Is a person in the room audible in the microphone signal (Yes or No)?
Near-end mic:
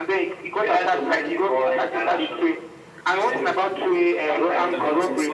Yes